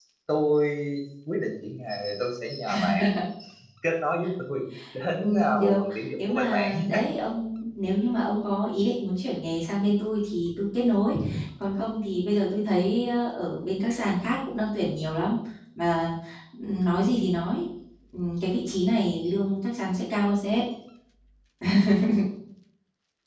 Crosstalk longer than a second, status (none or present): present